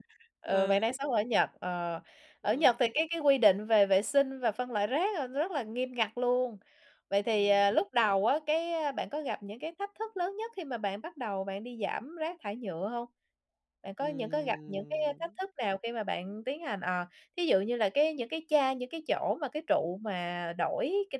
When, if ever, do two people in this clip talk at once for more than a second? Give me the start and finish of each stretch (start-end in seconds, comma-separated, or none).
14.0-15.3